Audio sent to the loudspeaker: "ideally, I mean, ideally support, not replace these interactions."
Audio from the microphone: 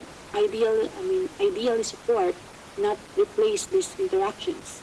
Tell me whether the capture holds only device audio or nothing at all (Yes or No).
Yes